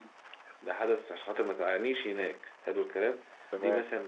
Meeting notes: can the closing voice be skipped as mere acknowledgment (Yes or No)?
Yes